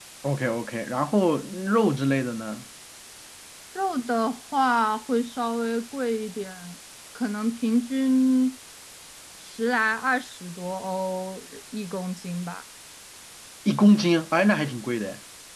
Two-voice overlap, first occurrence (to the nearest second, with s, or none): none